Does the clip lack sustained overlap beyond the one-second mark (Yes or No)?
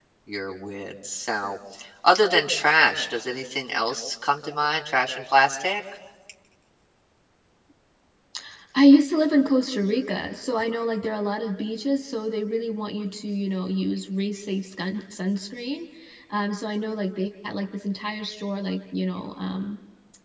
Yes